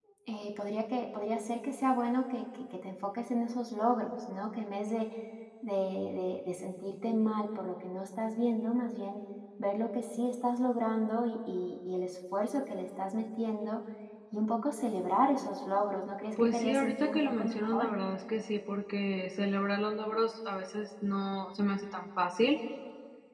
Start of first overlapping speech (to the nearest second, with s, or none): 16 s